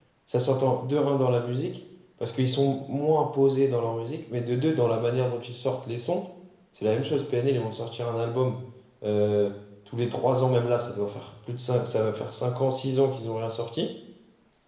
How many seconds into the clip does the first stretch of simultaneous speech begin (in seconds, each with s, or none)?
none